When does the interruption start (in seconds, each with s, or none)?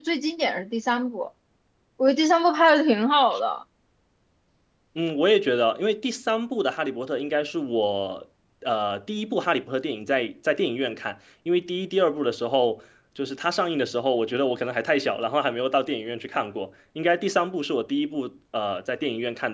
none